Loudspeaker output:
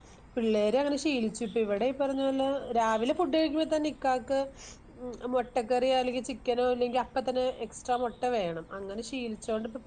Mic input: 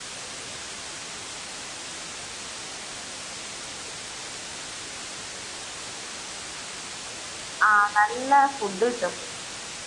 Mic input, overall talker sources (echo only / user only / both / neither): user only